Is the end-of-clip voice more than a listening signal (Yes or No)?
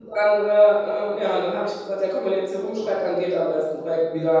Yes